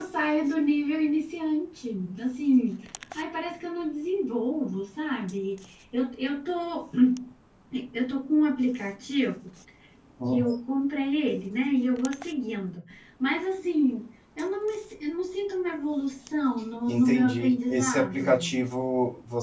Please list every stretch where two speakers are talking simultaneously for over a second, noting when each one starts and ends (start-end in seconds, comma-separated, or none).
16.9-18.6